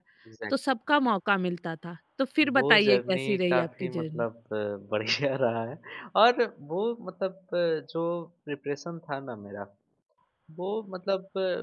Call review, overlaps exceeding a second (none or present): present